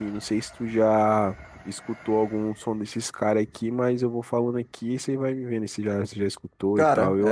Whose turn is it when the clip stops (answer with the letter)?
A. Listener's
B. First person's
A